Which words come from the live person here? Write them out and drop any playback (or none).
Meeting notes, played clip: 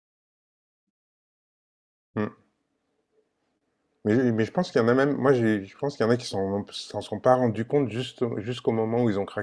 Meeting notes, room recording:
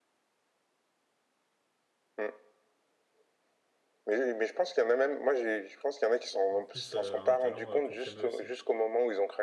Son fils euh, a un talent euh, pour le piano aussi.